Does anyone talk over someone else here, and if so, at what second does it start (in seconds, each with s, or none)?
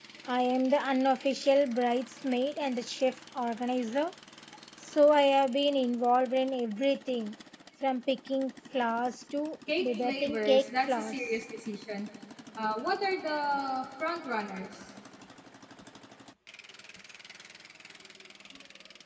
9.7 s